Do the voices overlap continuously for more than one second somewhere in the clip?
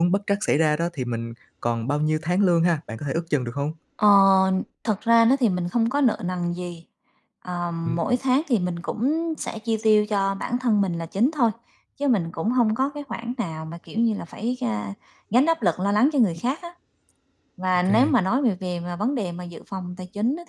No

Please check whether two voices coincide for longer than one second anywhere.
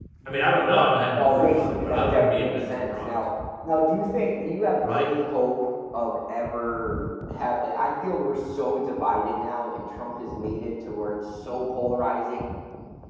Yes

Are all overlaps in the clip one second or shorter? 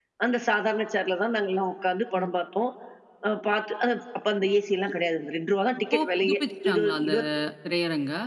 No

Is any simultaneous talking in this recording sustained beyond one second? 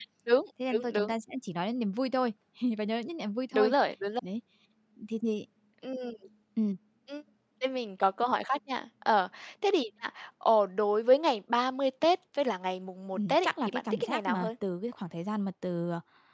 Yes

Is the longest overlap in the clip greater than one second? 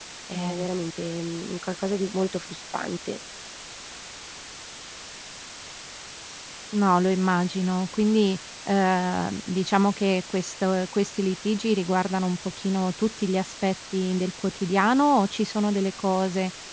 No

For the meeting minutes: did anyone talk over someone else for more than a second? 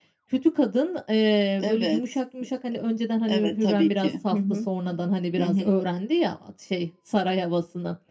Yes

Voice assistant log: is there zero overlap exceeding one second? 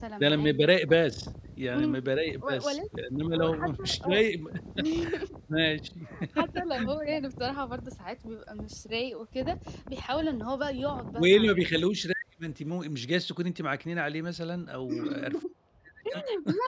No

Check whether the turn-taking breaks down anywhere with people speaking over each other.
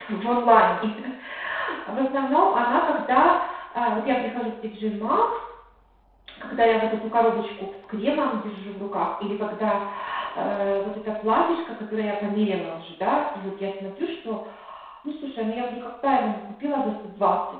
No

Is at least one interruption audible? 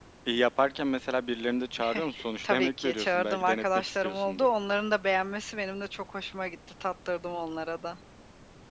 Yes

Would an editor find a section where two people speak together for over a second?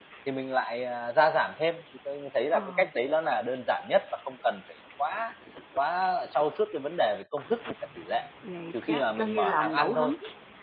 Yes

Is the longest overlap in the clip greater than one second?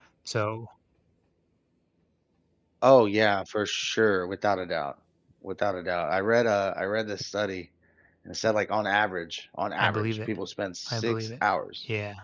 No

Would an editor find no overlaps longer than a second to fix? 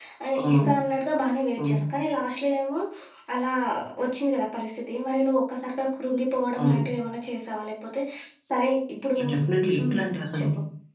Yes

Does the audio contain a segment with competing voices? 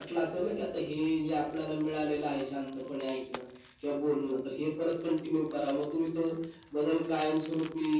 No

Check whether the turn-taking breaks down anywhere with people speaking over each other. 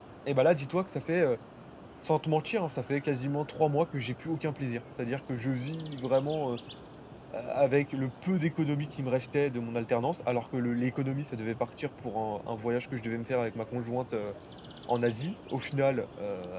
No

